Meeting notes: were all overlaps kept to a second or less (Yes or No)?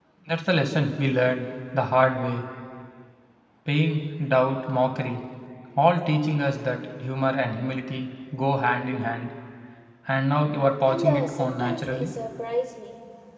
No